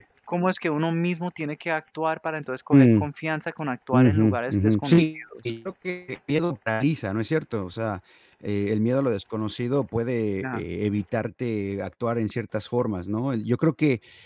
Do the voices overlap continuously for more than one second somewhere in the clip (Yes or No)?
Yes